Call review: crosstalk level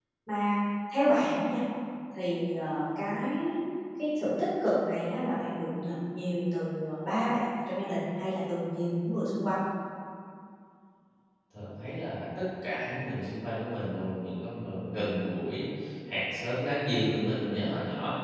none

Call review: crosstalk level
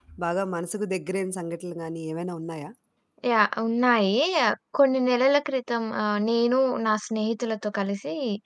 none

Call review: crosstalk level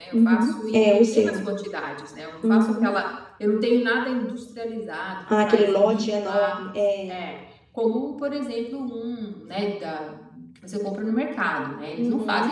present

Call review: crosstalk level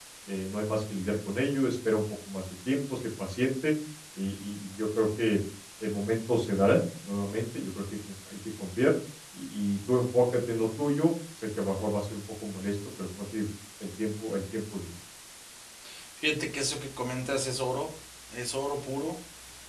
none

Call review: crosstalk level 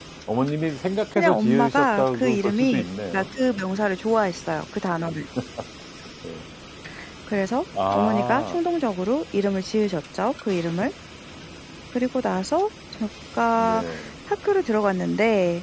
present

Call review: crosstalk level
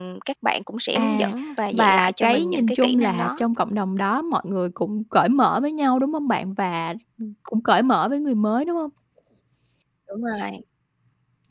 present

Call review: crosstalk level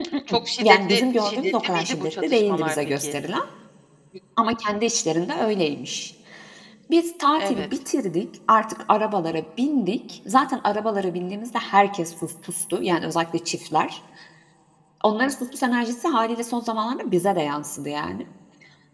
present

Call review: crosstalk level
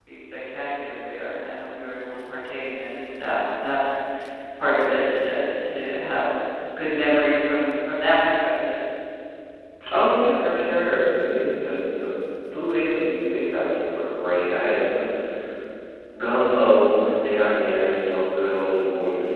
none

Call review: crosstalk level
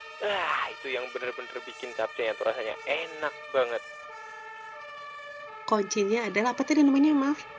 none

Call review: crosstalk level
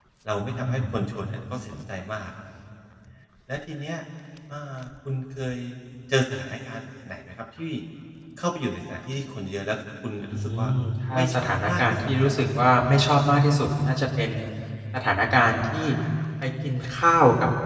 present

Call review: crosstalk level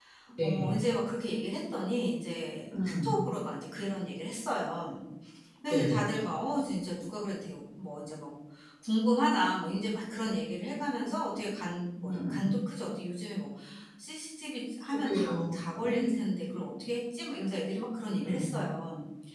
present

